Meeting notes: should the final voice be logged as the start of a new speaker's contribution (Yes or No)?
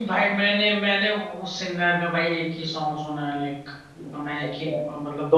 Yes